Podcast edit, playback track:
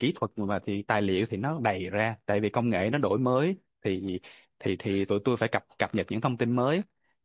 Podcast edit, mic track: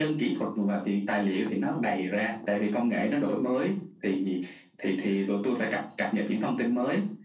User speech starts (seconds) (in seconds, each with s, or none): none